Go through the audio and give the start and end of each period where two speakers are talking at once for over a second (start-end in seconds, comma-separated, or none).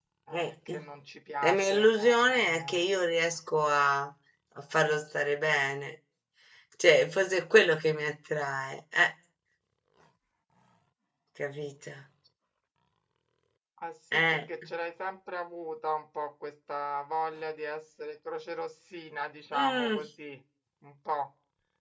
1.4-2.8